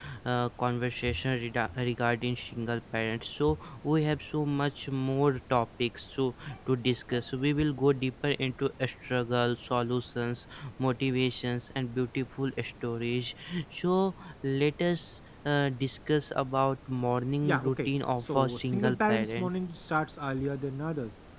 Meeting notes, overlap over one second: present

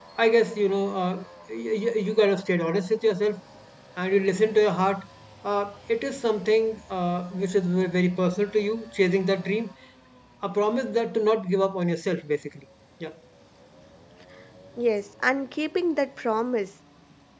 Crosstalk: none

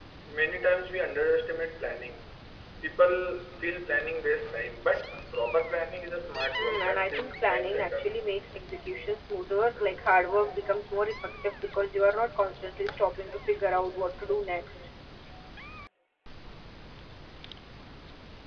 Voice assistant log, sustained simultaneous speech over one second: present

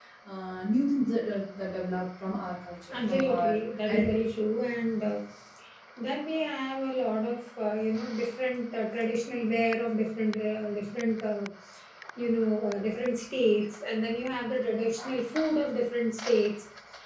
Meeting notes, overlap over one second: present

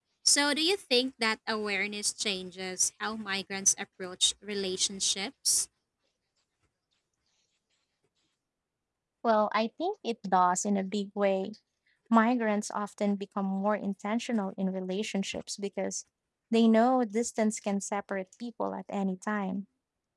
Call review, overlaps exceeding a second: none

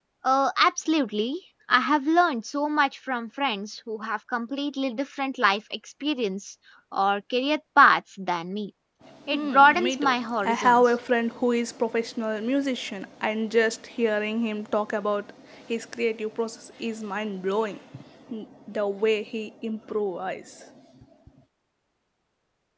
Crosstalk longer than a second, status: present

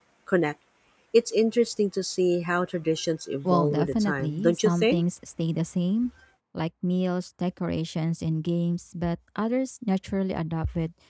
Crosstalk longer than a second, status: present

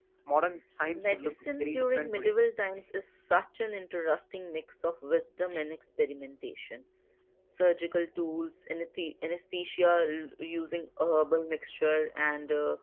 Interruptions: present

